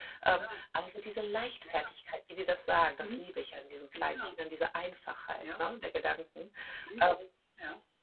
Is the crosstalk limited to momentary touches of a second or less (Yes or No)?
Yes